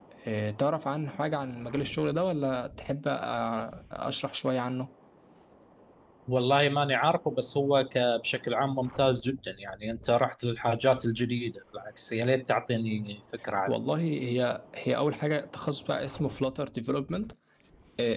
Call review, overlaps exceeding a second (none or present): none